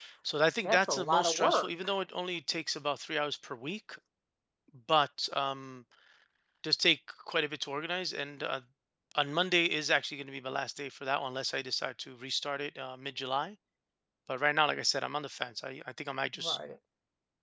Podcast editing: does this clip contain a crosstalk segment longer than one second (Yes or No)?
Yes